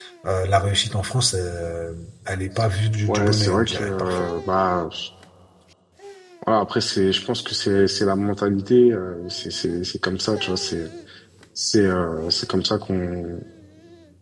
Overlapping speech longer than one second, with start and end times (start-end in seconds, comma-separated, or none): 3.1-4.3